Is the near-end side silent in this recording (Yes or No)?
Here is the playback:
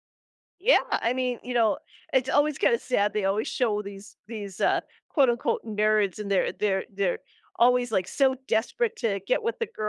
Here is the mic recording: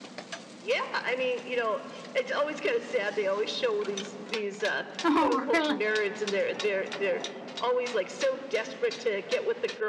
No